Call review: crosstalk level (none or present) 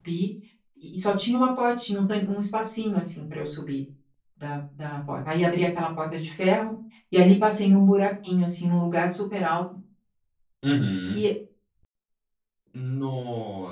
none